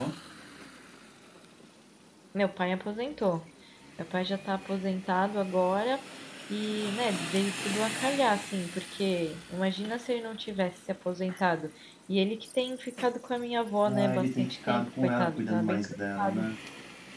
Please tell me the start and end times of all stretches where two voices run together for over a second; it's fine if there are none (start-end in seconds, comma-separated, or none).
13.8-16.5